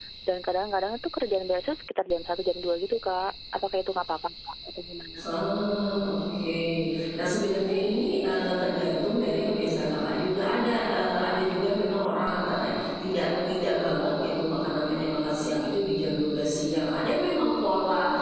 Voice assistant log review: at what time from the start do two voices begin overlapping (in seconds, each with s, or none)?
none